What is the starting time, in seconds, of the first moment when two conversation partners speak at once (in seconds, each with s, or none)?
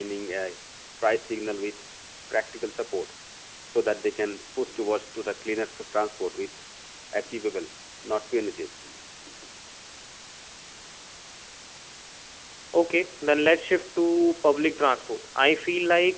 none